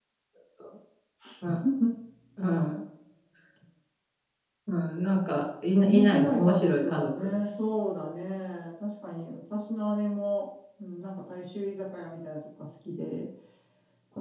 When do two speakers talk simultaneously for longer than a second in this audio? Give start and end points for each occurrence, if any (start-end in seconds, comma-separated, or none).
5.8-7.3